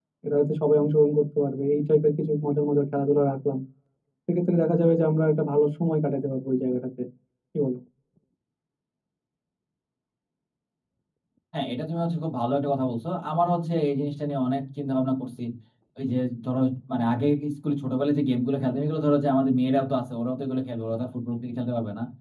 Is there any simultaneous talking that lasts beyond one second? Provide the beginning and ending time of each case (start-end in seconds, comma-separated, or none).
none